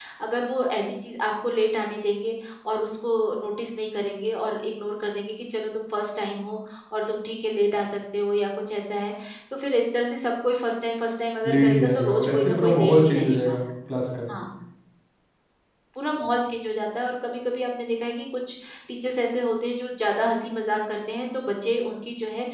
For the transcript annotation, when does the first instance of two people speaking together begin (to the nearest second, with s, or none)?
11 s